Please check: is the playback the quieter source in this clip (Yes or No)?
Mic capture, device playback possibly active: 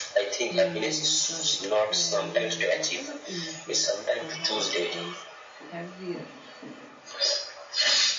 No